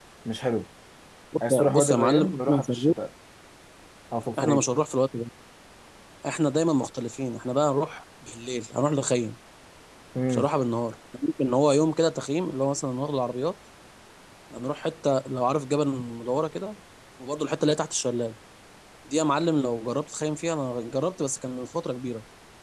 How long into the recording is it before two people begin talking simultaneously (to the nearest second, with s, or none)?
1 s